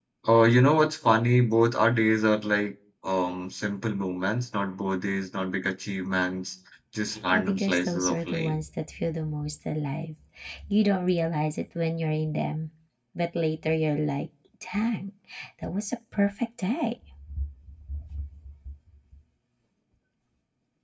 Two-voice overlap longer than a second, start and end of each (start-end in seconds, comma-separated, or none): 7.3-8.5